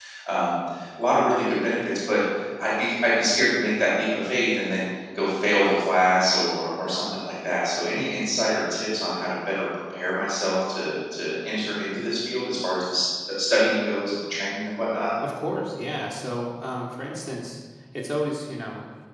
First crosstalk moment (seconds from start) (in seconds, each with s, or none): none